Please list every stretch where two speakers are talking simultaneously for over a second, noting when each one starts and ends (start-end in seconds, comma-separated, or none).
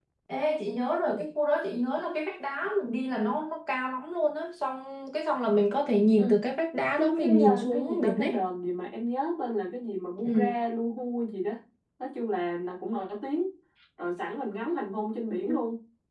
7.0-8.4